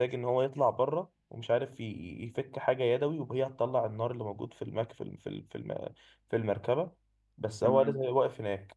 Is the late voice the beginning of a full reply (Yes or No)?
No